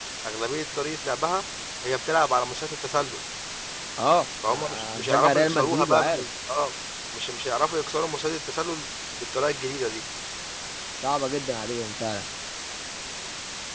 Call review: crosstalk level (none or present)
present